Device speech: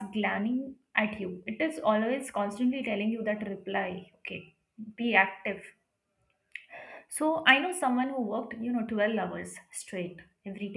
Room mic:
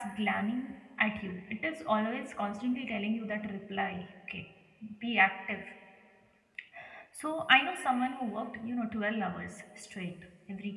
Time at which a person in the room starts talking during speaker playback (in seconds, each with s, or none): none